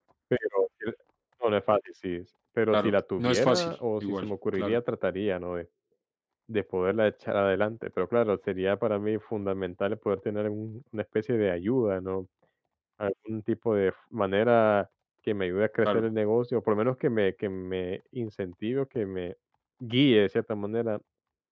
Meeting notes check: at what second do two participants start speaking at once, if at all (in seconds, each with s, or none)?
2.7 s